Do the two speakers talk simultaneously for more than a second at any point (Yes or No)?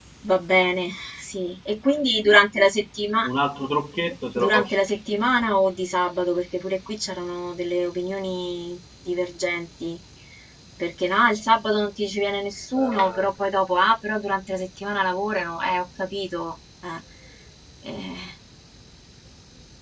No